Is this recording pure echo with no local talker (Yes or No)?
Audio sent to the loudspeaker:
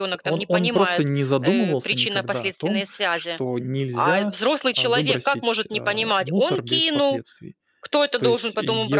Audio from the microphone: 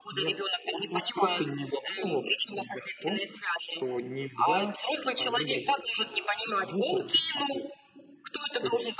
Yes